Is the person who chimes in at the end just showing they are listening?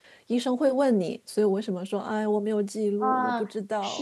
No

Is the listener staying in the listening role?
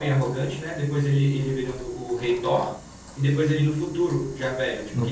No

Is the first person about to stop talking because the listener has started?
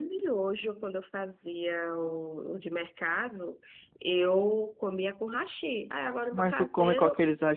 Yes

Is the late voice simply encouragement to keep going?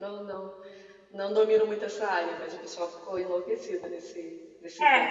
No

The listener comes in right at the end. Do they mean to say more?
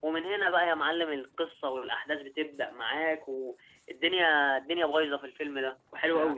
Yes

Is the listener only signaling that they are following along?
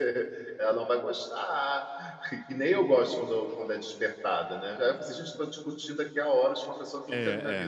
No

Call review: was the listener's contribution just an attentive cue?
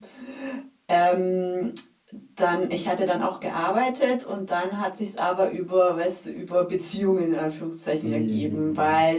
Yes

